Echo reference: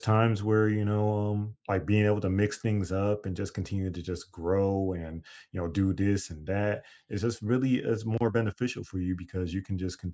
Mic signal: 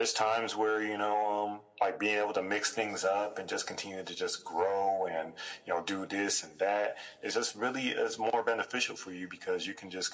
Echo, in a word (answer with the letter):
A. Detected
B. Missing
A